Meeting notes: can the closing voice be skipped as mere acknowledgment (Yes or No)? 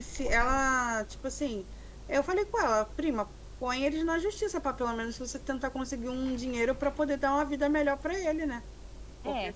Yes